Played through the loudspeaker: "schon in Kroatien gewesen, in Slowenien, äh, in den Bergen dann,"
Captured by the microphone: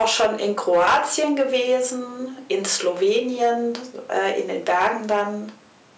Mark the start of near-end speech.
none

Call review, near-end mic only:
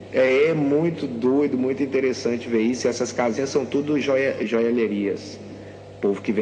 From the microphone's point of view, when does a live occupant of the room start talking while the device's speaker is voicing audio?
none

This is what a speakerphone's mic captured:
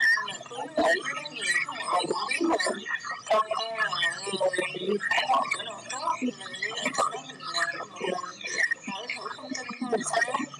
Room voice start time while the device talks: none

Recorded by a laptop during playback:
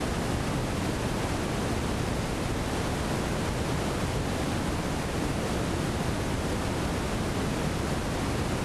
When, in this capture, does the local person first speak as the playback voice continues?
none

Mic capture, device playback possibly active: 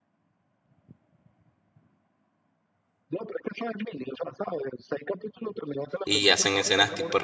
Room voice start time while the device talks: 6.0 s

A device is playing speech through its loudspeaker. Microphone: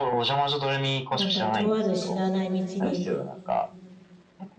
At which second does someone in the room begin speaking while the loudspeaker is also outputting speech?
1.1 s

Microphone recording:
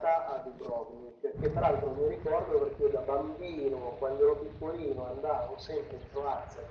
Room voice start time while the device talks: none

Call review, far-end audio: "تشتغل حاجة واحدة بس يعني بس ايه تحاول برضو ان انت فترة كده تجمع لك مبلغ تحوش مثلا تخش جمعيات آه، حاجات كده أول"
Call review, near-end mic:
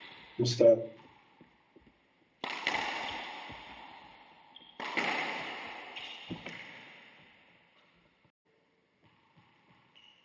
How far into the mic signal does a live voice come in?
0.4 s

